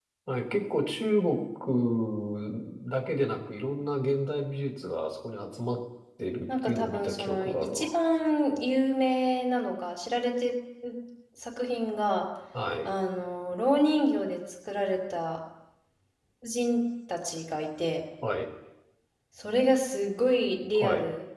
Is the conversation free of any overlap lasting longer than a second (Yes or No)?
No